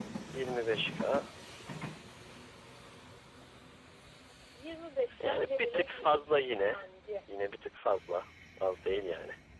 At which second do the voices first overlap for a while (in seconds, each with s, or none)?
5.2 s